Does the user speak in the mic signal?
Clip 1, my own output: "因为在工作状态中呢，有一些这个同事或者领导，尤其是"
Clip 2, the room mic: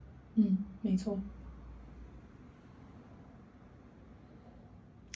Yes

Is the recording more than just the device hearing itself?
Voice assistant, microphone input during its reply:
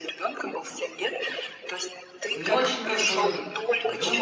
Yes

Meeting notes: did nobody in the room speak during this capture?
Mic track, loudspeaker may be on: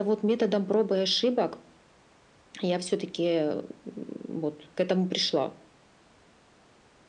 Yes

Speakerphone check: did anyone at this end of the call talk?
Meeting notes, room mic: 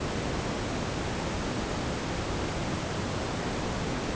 No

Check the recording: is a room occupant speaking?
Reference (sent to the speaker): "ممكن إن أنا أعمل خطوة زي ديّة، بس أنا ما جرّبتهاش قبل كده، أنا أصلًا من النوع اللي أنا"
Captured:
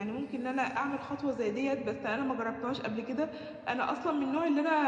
No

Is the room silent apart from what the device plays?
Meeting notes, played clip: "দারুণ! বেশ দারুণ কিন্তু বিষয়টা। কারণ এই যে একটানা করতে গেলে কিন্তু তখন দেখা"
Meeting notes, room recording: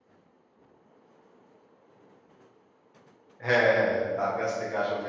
No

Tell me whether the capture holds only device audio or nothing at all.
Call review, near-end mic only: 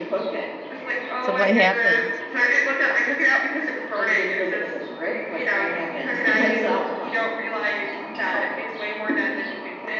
No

